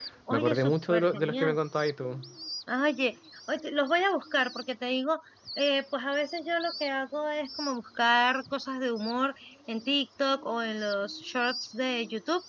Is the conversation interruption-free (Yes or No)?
No